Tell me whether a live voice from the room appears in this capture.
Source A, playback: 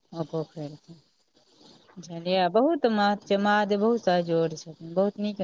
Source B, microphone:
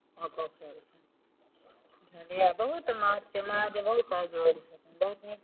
No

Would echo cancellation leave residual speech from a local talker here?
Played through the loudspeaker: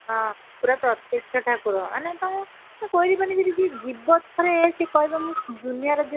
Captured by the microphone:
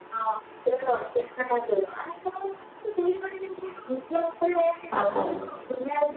Yes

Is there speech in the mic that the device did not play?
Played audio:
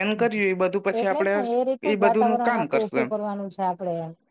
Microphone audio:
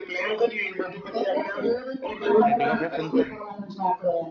Yes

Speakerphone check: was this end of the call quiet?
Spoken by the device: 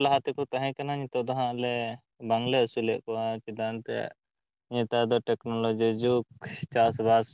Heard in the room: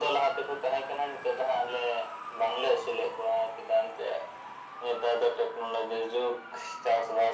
Yes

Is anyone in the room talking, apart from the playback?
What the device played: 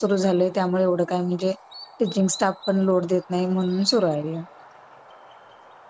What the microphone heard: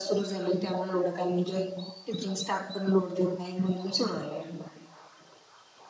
No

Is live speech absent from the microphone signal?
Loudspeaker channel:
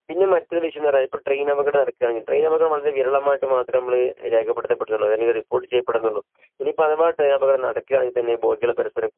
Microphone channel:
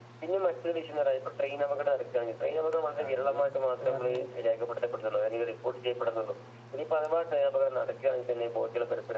No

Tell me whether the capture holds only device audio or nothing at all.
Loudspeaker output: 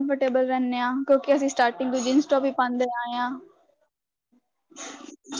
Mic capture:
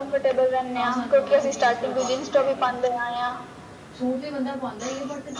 No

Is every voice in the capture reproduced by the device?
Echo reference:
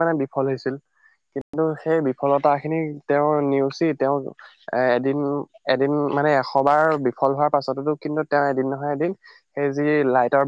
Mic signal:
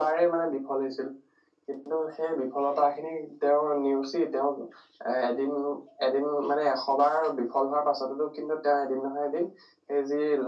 Yes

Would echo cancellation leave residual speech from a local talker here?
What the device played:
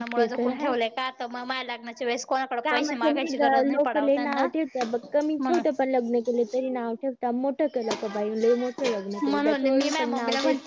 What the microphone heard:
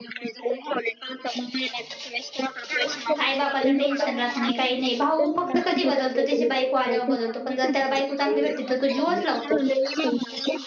Yes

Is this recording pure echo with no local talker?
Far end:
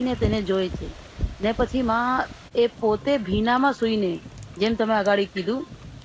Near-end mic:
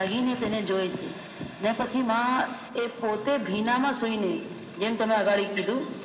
Yes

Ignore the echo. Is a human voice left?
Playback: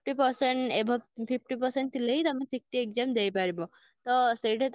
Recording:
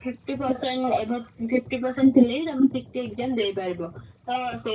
No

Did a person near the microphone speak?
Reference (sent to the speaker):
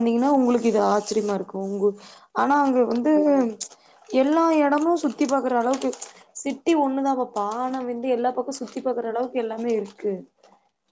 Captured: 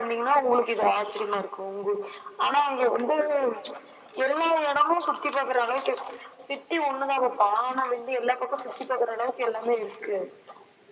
No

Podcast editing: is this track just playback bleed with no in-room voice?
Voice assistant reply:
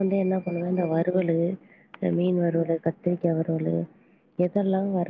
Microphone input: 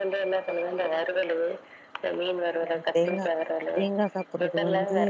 No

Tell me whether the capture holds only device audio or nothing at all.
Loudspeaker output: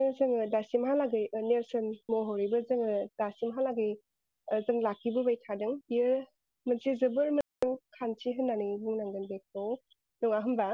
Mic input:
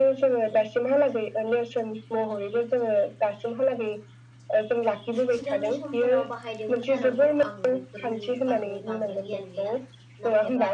No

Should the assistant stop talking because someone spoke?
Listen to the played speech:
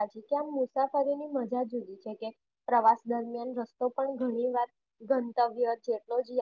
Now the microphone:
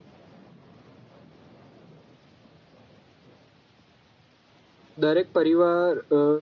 Yes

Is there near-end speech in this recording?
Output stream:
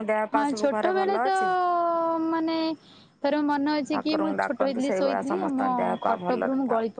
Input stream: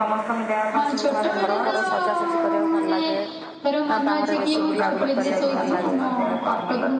Yes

